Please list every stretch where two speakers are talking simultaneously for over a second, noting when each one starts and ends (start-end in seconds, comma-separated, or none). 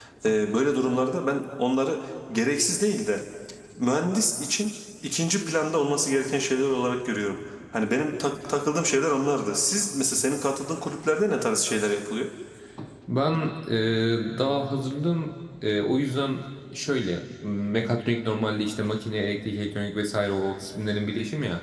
none